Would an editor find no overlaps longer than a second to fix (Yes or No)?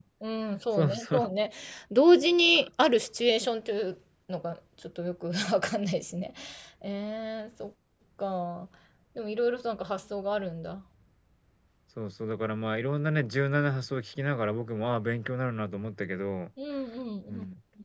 Yes